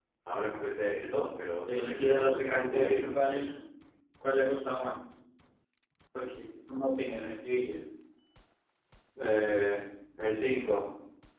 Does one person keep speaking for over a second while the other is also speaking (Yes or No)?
Yes